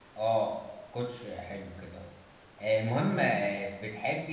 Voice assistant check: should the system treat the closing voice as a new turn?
No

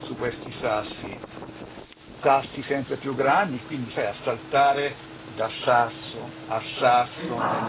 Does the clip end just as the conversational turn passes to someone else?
Yes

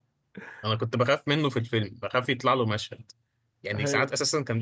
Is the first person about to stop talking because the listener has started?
No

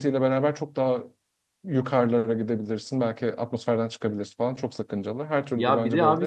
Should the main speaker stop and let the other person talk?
Yes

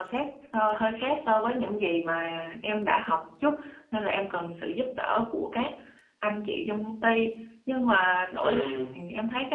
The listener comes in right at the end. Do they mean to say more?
No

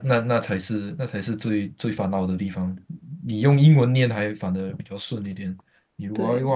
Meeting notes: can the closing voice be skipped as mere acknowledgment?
Yes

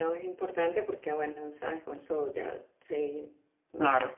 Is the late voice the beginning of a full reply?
No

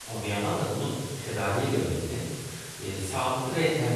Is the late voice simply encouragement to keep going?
Yes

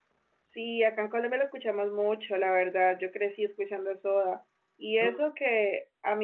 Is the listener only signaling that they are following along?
Yes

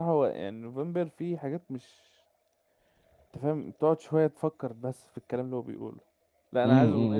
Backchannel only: No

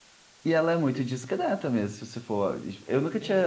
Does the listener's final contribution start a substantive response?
Yes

